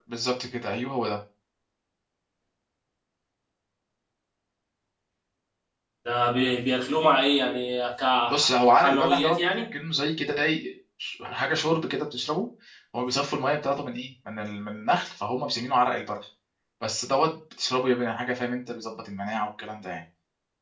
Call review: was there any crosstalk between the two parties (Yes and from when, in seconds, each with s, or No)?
Yes, from 8.3 s